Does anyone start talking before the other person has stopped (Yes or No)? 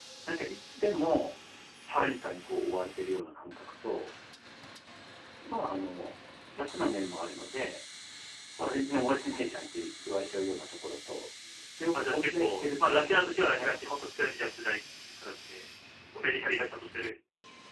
Yes